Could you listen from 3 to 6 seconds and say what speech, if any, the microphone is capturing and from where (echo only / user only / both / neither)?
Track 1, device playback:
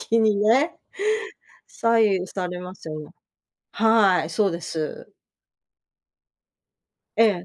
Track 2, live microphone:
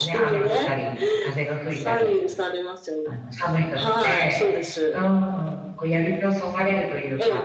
both